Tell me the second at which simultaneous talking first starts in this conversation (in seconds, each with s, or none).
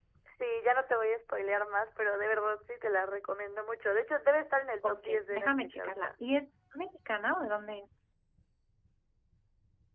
4.8 s